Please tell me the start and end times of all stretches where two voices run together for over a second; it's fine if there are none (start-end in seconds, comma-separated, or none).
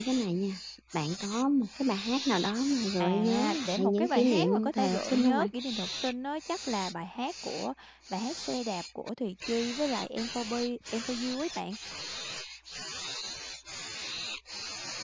3.0-5.5